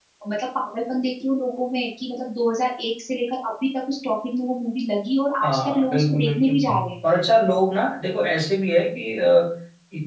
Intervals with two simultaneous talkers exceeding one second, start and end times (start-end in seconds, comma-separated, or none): 5.4-6.8